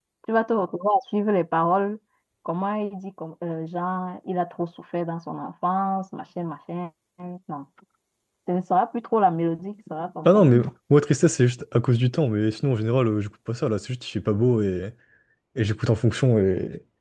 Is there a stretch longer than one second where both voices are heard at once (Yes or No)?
No